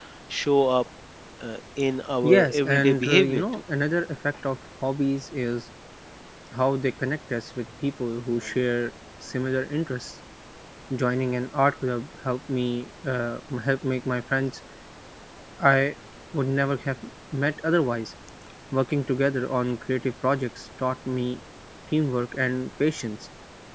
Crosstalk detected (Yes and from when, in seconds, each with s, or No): Yes, from 2.2 s